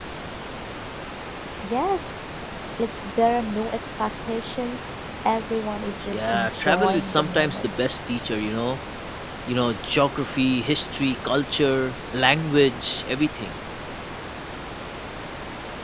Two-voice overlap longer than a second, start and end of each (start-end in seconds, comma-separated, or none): 6.1-7.8